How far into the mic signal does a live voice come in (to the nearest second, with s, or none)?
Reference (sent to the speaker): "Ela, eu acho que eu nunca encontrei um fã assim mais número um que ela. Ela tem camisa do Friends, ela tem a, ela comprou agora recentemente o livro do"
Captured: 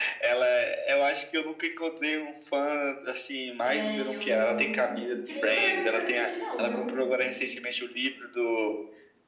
4 s